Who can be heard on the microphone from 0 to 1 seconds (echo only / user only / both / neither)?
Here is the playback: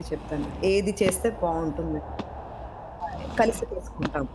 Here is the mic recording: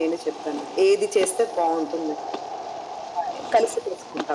echo only